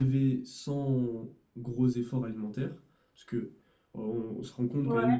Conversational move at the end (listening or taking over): listening